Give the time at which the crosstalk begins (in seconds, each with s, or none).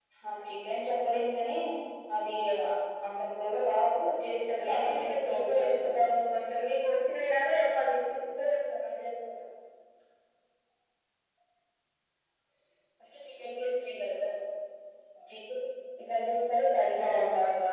4.6 s